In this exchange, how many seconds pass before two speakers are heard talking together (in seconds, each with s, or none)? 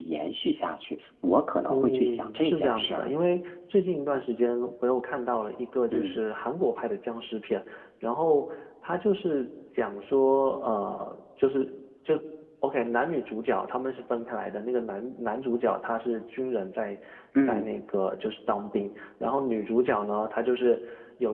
1.7 s